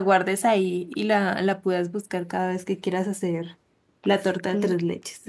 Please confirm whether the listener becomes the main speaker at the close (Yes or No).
Yes